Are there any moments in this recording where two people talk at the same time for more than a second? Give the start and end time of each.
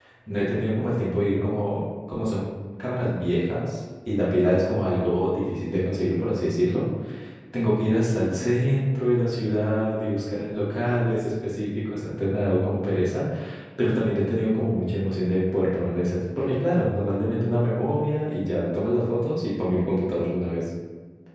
none

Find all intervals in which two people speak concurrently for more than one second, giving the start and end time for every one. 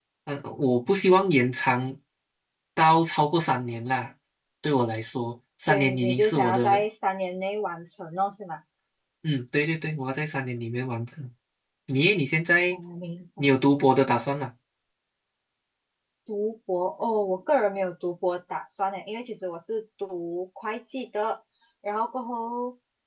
5.6-6.8

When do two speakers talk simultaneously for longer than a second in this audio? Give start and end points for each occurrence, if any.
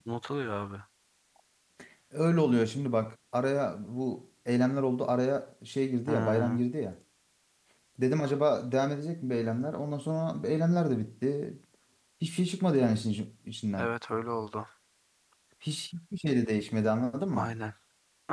none

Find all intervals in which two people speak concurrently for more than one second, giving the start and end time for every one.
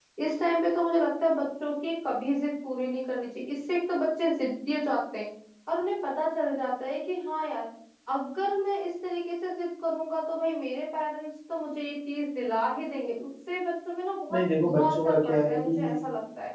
14.3-15.9

